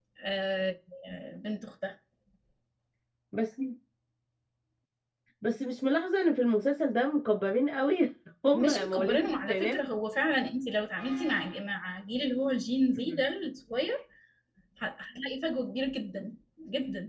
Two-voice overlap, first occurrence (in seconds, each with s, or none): 8.5 s